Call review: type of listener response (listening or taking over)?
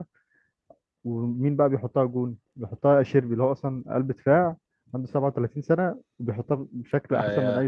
taking over